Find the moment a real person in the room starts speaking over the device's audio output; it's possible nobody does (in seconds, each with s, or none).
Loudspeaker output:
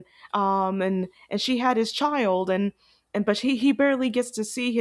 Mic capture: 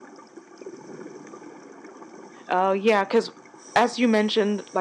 2.5 s